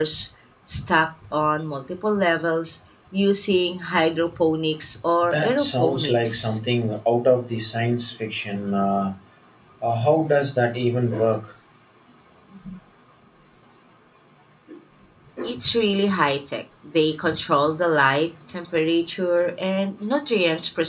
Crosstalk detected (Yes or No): Yes